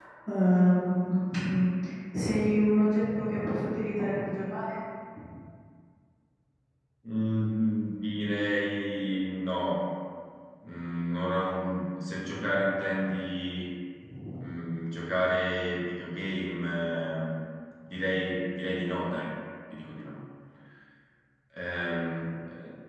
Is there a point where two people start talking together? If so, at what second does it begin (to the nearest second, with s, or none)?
none